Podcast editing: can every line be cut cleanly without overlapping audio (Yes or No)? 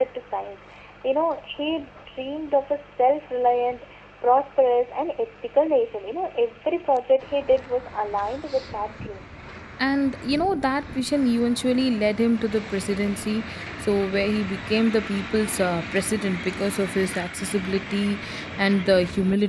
Yes